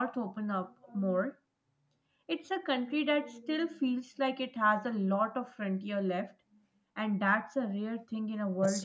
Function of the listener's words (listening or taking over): taking over